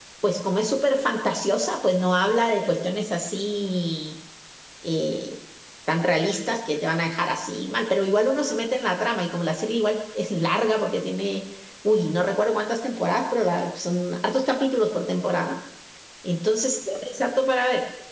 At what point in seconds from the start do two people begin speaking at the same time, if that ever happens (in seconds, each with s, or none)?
none